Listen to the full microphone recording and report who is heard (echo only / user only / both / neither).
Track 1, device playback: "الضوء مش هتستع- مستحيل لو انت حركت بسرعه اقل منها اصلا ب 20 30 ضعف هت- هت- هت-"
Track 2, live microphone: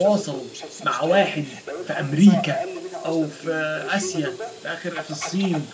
both